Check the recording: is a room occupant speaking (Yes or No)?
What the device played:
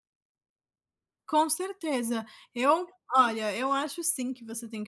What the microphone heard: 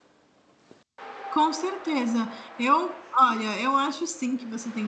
No